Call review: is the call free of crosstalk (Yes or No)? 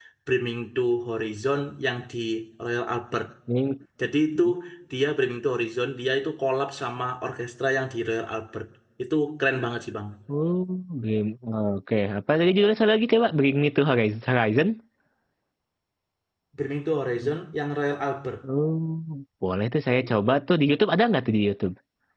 Yes